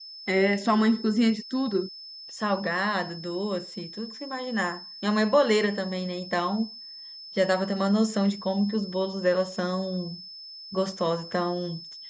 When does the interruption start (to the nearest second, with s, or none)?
none